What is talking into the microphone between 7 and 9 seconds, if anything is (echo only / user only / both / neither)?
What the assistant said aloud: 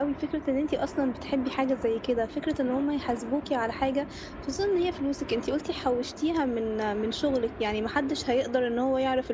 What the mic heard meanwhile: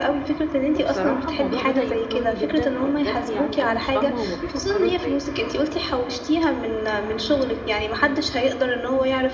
echo only